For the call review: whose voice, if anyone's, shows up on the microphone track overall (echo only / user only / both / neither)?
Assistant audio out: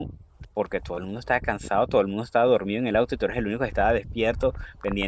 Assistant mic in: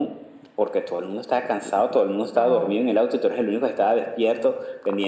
both